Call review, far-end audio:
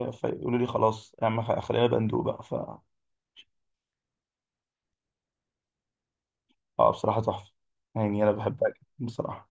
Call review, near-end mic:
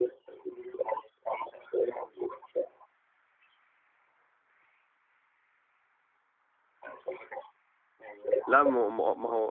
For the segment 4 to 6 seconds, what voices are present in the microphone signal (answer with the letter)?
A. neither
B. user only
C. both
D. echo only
A